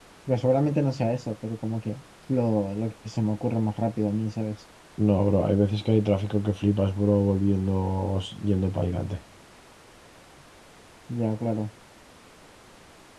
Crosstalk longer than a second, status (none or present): none